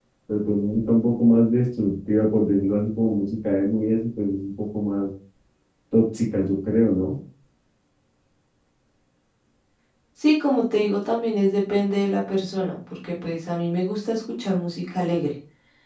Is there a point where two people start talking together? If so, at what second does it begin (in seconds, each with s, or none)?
none